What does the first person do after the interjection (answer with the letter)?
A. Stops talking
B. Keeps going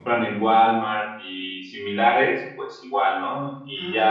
B